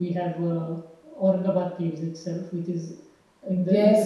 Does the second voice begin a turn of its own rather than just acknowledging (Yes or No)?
Yes